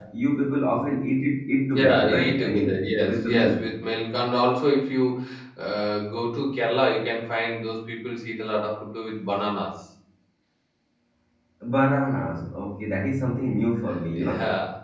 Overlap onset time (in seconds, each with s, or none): 1.8 s